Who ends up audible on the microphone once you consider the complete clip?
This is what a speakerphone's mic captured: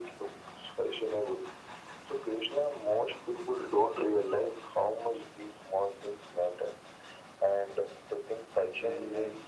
both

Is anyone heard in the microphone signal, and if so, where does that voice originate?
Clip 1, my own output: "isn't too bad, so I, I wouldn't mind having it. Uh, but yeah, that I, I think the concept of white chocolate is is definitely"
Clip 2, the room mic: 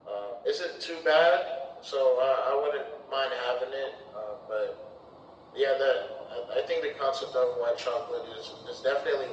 echo only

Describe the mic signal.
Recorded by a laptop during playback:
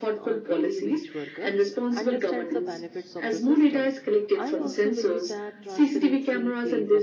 both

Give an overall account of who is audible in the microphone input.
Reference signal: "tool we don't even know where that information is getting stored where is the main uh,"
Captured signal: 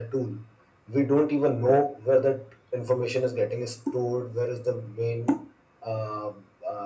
echo only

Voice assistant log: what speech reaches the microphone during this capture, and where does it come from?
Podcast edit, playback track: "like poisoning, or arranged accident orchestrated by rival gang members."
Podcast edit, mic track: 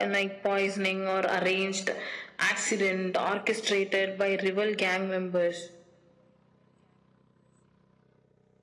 echo only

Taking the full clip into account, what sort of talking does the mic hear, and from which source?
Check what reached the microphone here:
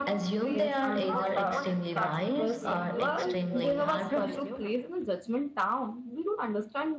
both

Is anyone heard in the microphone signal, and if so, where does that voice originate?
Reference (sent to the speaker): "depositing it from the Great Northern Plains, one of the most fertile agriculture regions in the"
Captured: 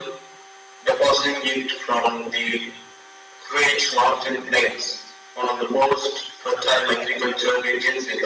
echo only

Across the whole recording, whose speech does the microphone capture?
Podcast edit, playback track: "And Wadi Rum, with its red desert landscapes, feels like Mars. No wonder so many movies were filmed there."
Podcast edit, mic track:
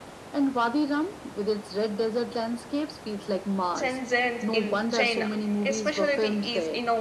both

